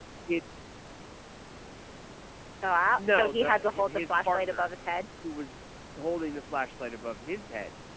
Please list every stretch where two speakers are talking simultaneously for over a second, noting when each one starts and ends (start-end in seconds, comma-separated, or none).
3.0-4.7